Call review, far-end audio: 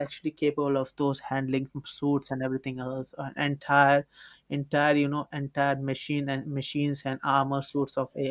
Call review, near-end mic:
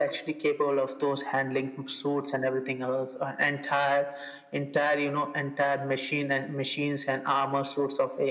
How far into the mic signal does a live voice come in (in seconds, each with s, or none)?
none